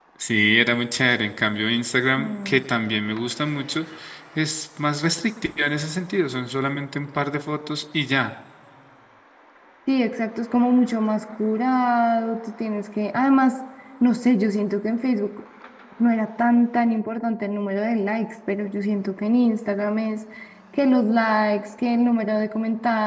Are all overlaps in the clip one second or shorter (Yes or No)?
Yes